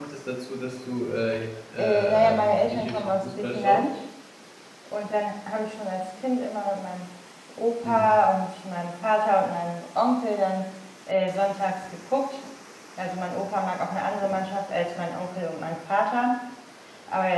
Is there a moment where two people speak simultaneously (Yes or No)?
Yes